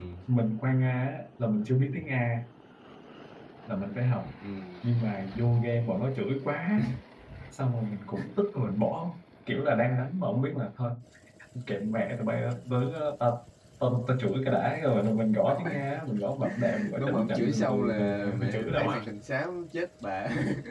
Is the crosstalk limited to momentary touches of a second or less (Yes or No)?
No